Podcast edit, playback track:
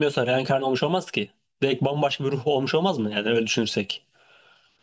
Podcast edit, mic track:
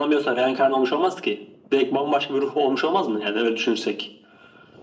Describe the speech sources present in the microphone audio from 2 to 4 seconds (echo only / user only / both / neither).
echo only